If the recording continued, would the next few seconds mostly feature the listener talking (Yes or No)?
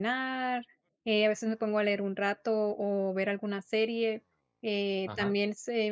No